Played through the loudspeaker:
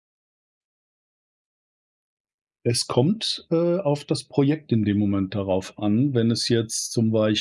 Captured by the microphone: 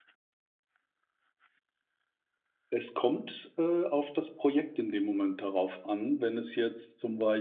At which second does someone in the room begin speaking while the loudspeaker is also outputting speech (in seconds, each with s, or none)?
none